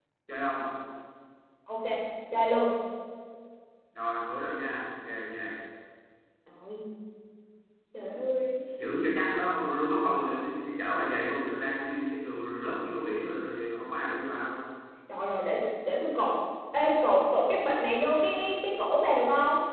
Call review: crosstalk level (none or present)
none